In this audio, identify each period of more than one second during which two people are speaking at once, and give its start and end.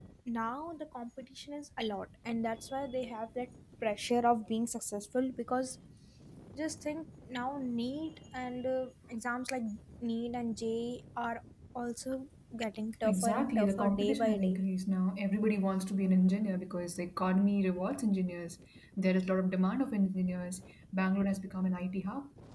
13.0-14.6

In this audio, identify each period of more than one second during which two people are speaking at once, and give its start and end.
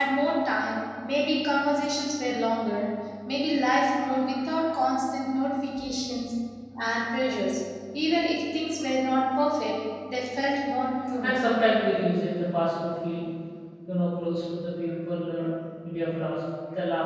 none

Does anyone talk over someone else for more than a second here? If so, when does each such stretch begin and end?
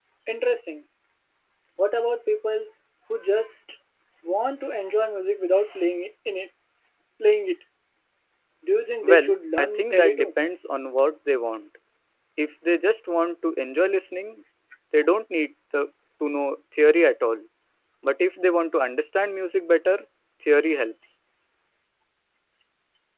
9.0-10.3

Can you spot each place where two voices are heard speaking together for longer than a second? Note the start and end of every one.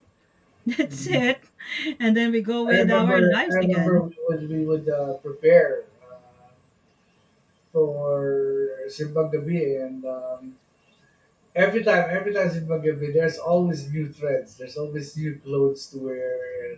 2.7-4.0

